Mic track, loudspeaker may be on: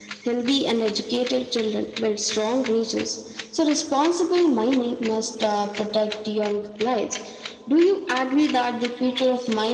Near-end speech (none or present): none